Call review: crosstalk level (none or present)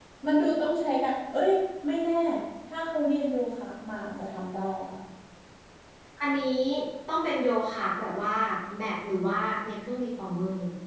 none